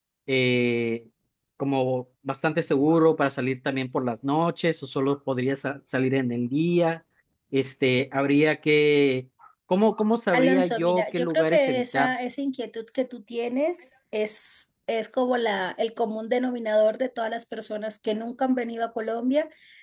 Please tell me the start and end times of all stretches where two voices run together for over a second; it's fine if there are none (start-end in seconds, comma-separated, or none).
10.3-12.1